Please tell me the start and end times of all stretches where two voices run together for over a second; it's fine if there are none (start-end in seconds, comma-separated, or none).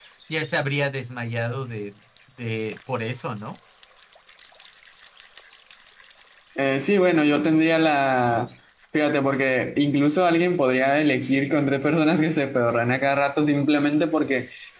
none